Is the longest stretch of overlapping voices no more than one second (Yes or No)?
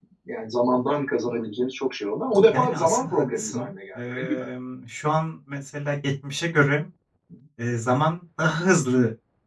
No